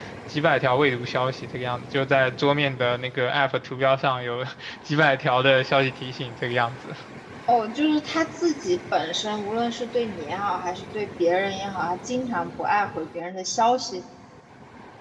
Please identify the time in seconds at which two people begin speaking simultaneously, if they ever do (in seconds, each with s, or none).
none